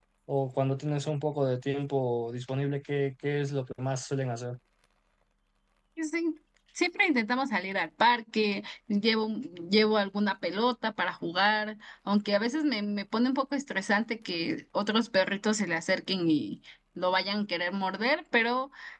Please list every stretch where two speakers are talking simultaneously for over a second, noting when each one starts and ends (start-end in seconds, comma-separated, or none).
none